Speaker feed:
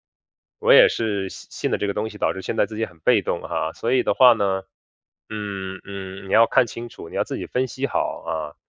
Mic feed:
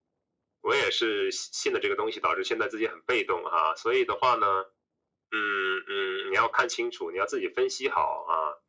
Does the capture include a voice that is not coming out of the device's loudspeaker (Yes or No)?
No